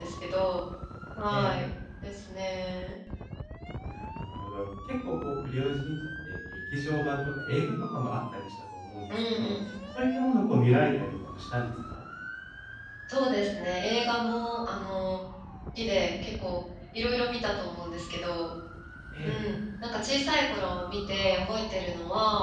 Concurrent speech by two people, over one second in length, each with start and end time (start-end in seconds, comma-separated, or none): none